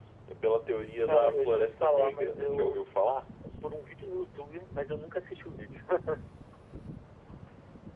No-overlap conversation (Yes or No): No